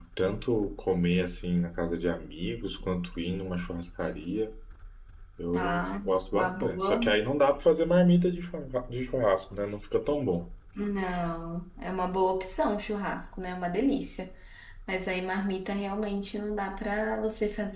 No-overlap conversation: No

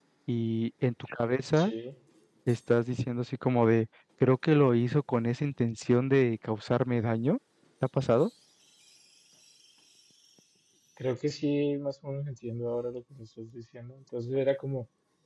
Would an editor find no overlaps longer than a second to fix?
Yes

